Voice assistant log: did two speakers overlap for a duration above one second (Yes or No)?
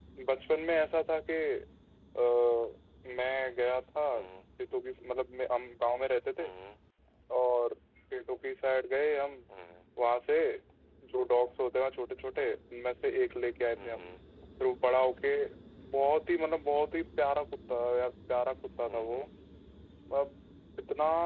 No